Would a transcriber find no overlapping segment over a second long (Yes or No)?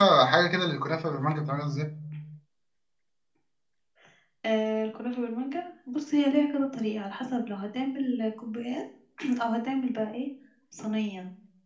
Yes